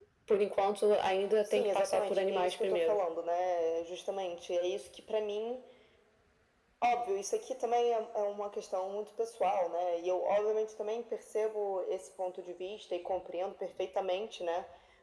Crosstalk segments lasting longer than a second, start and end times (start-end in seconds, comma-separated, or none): 1.5-3.0